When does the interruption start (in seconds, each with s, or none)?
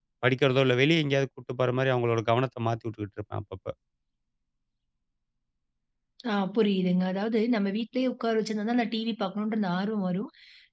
none